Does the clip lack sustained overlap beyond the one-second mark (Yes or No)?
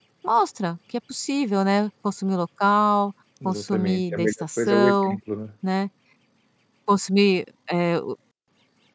No